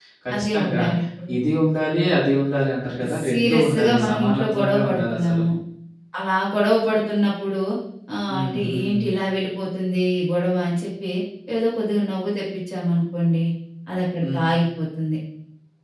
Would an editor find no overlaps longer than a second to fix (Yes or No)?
No